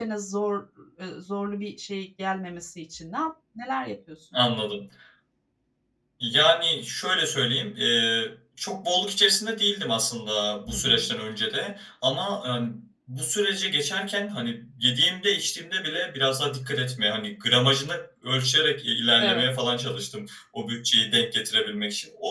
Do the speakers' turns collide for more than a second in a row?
No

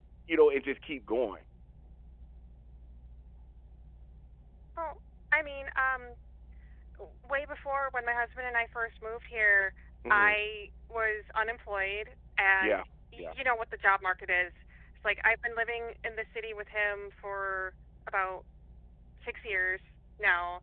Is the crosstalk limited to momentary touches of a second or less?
Yes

